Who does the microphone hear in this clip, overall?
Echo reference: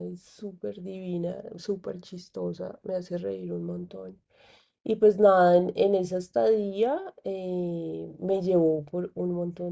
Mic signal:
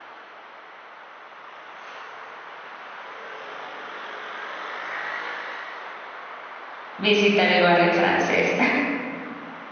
user only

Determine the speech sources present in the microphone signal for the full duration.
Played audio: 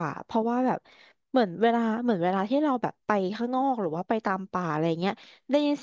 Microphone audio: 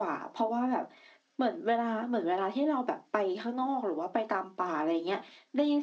echo only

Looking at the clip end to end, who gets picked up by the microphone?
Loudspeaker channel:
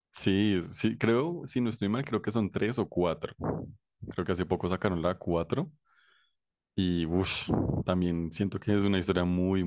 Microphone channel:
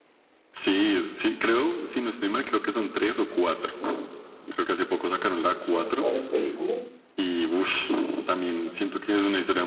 both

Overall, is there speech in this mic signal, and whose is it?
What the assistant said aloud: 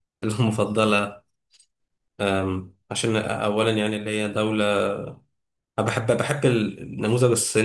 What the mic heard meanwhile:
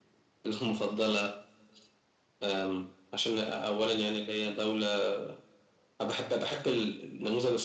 echo only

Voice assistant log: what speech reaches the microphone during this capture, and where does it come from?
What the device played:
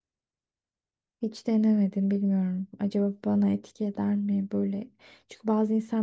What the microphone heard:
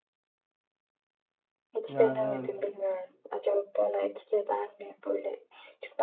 both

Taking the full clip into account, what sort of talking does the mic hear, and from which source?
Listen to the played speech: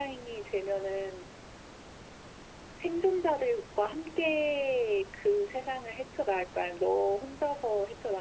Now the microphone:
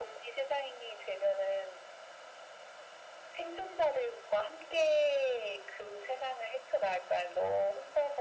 echo only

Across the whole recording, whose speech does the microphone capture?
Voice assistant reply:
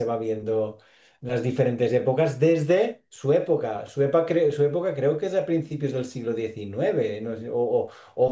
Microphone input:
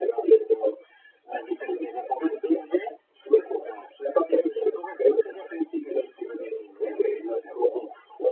echo only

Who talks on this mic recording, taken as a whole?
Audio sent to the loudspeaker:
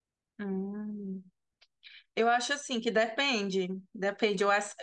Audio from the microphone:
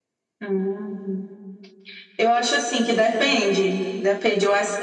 echo only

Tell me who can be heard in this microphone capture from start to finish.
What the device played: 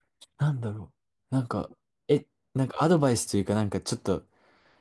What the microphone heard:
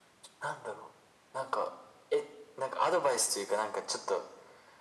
echo only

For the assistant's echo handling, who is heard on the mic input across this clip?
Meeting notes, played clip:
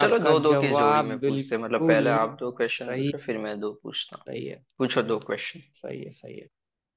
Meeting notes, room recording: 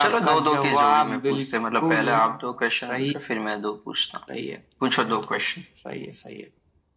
echo only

